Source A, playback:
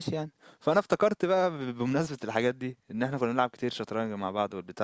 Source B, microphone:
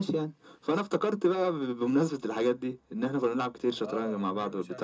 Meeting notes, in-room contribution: present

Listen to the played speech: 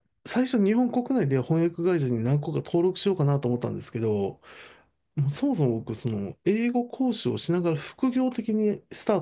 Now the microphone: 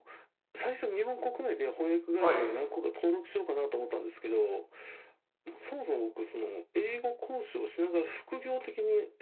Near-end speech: present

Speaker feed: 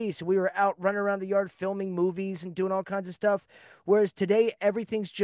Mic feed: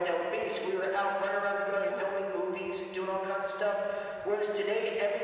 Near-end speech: present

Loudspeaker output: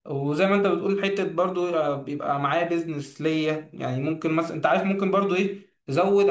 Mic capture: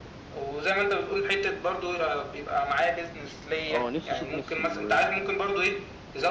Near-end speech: present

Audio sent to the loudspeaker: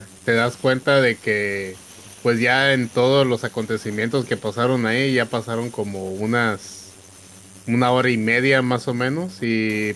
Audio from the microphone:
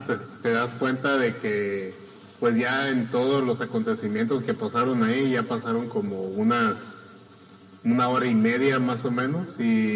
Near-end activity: none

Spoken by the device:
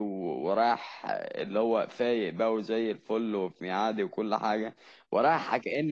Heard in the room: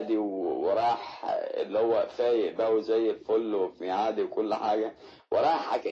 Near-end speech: none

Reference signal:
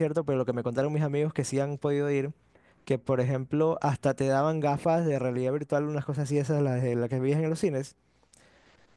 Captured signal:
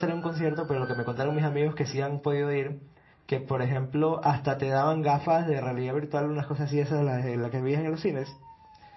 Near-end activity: none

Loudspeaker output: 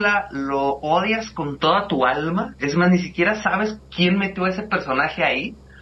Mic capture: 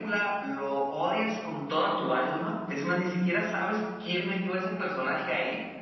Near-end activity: none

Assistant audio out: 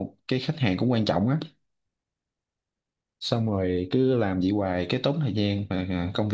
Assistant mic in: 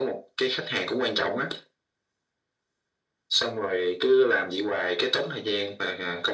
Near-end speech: none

